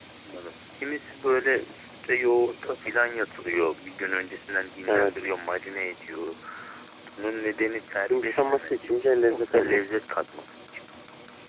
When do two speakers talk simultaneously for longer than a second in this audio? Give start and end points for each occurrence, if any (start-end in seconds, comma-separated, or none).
8.1-9.9